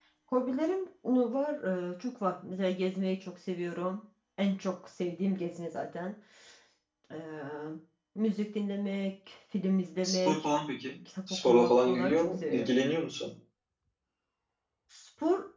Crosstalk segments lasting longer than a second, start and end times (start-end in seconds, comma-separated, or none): 11.3-12.7